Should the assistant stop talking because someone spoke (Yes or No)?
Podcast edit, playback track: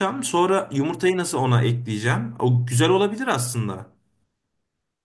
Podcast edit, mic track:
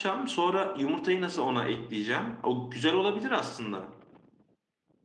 No